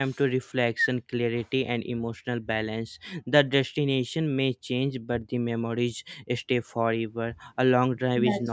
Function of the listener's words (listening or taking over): listening